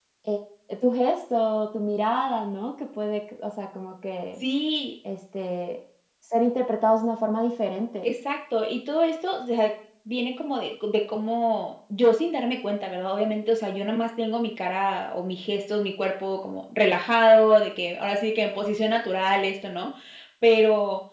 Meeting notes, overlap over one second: none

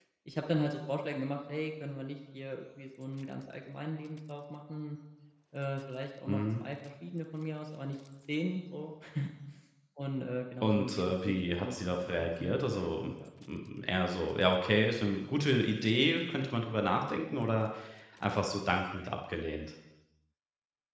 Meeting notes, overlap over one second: present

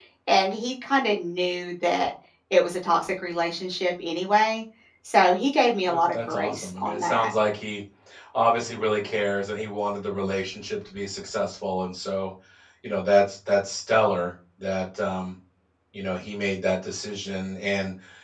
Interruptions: present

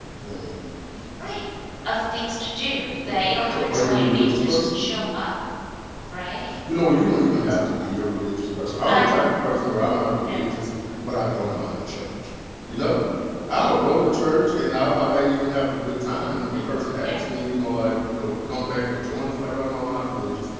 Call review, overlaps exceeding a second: present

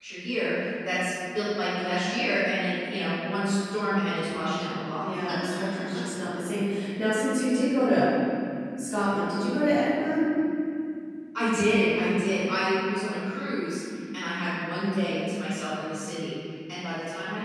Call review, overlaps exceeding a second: none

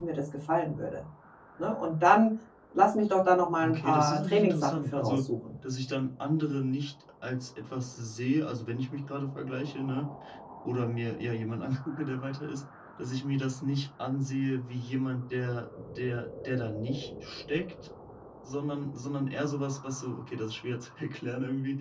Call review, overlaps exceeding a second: present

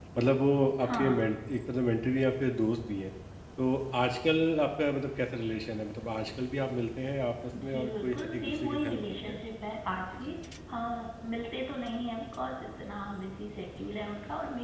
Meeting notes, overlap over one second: present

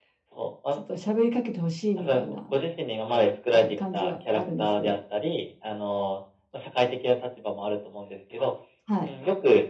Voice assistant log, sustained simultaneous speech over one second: present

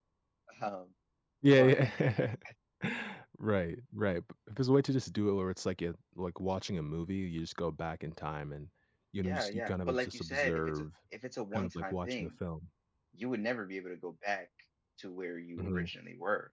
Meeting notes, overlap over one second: present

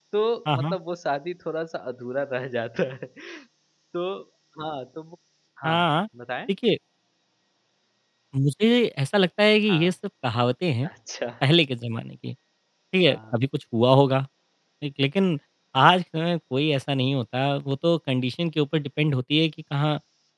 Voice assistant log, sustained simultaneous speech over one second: none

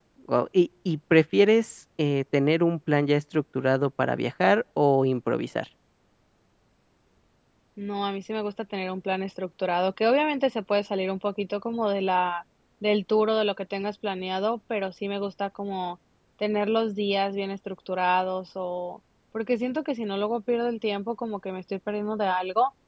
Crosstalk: none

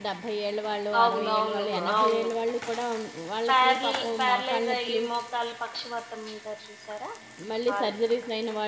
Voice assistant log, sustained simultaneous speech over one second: present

